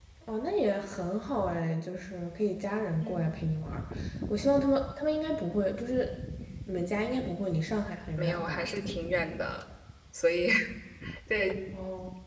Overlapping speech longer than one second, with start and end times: none

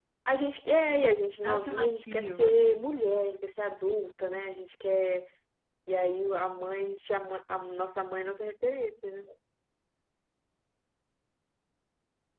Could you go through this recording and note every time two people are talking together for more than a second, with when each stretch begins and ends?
1.4-2.9

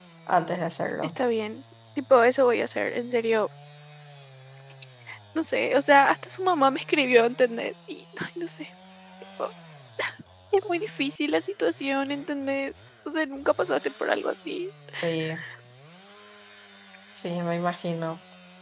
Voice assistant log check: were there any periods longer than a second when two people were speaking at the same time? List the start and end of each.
none

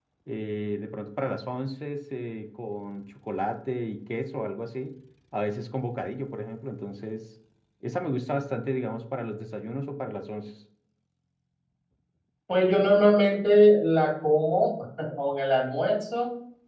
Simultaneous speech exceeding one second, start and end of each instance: none

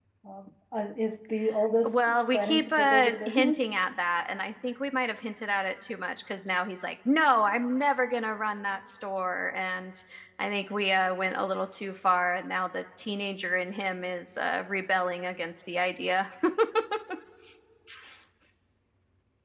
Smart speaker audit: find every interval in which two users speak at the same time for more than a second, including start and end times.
1.9-3.7

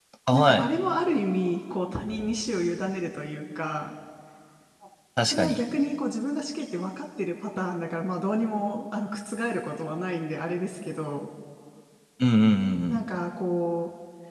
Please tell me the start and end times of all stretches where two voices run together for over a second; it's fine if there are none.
none

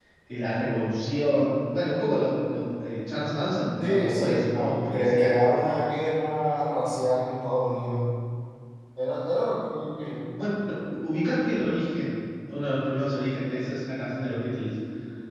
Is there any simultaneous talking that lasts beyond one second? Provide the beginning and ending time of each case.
3.8-5.6

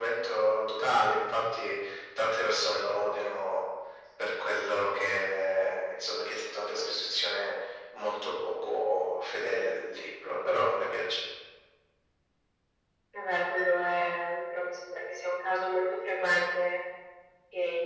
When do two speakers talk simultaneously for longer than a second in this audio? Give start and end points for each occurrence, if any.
none

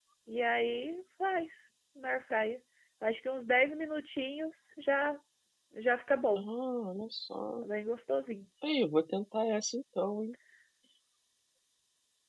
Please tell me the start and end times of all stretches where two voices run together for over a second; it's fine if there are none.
none

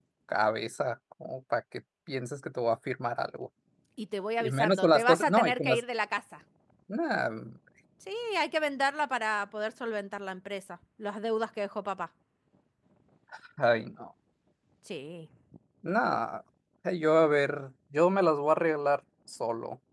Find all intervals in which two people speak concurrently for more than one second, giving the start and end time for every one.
4.4-5.8

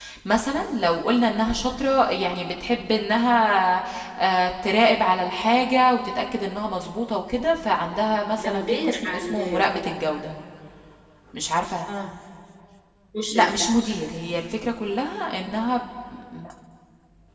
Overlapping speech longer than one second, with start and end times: 8.4-10.0

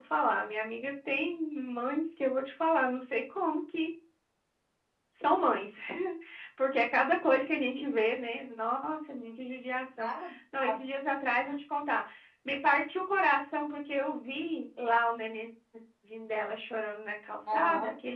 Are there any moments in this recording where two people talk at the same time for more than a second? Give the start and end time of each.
none

